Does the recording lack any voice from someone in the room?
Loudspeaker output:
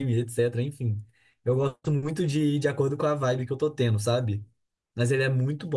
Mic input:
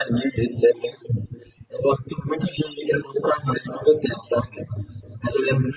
Yes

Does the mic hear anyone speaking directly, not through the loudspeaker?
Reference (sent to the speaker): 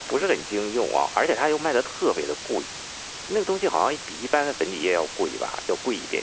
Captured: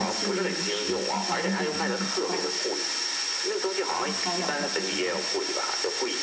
Yes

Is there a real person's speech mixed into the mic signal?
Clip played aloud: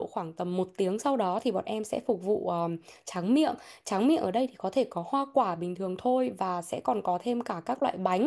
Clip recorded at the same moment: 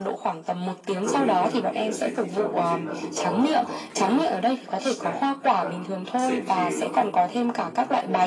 Yes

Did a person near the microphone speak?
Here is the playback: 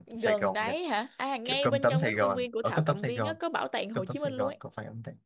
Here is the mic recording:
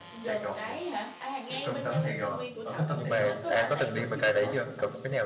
Yes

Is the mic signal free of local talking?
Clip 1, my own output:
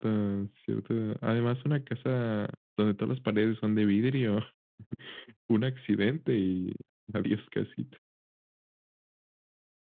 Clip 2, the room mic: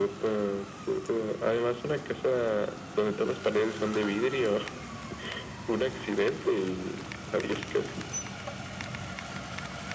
Yes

